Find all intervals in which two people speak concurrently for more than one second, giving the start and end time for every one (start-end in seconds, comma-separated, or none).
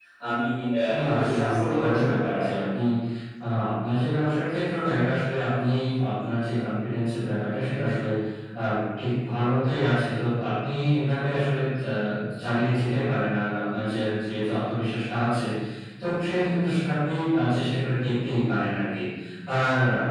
1.0-2.5